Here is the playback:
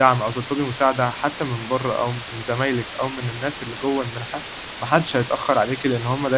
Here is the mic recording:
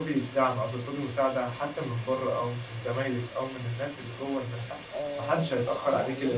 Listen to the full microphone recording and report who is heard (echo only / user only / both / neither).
both